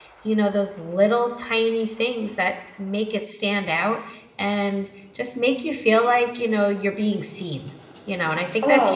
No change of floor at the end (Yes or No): No